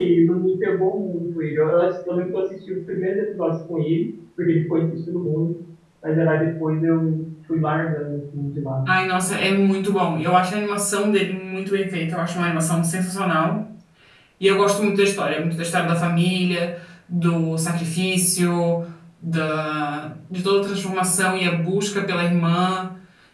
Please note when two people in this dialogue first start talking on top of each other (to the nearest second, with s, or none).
none